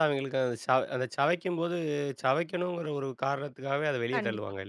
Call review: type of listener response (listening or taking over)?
taking over